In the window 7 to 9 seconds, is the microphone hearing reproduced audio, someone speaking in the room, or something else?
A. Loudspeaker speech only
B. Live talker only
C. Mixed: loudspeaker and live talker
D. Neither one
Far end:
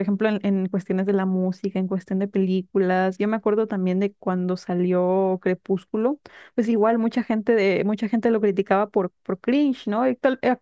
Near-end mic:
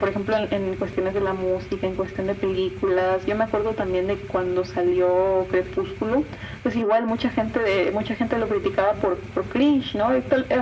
A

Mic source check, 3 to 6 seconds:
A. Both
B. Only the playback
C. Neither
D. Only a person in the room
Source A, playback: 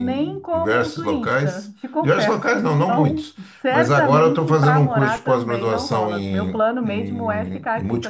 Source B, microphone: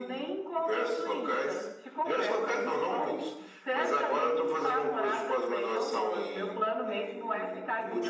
B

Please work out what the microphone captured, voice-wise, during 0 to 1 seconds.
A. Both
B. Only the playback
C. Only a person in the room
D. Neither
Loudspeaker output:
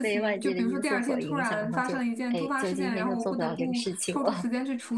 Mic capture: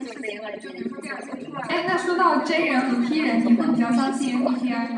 B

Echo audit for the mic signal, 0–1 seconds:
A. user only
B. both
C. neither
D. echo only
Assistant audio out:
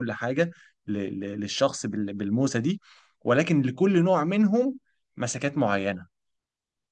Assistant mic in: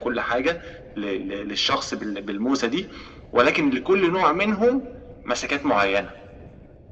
D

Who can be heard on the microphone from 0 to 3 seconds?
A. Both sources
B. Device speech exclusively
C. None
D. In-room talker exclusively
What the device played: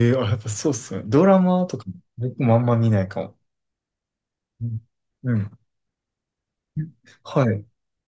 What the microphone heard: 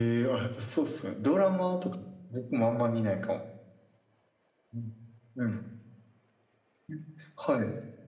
B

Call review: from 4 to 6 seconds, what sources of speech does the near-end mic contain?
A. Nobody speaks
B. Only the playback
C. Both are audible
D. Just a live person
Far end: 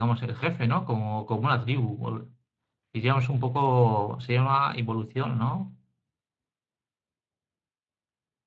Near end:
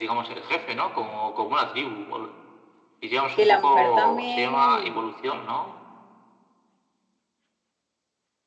C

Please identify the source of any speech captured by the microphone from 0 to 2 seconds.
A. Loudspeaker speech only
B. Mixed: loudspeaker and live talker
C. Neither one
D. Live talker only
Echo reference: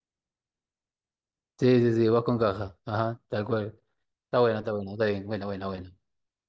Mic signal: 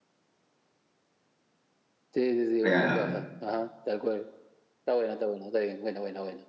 C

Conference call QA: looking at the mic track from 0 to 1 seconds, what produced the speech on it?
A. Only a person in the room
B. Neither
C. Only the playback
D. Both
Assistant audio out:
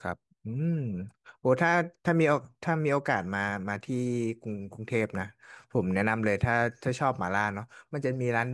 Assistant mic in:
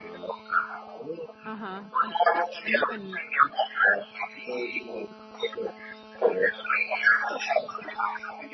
C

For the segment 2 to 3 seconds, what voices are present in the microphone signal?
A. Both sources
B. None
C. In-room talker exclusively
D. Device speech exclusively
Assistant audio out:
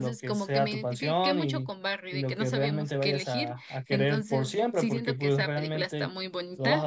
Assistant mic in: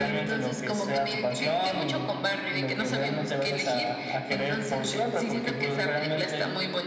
D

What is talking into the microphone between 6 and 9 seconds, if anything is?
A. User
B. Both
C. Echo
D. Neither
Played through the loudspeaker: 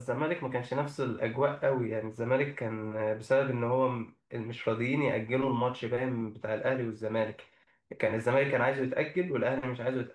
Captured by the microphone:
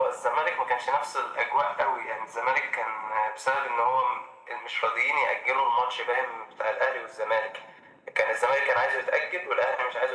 C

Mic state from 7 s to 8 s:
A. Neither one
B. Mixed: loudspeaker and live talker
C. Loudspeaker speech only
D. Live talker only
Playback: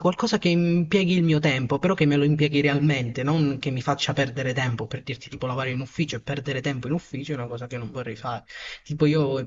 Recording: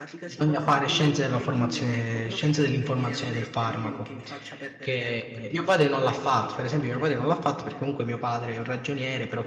B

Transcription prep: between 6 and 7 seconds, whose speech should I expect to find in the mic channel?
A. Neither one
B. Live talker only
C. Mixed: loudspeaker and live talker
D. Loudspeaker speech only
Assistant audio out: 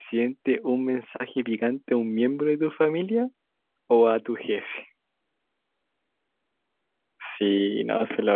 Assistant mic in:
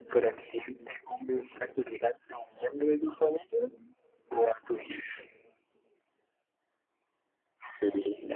A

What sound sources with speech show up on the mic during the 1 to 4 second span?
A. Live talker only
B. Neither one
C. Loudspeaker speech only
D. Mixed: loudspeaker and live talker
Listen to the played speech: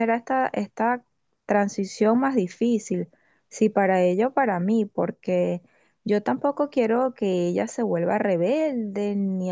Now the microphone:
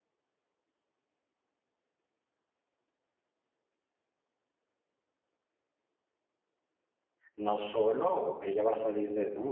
B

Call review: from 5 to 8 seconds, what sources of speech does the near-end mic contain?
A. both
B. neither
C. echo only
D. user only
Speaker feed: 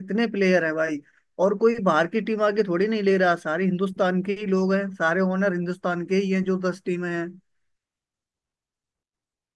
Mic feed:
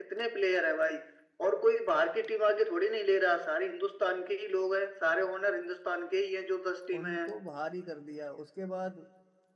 A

